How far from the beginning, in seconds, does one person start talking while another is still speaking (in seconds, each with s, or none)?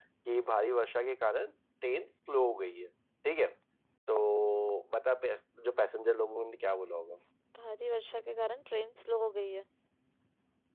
none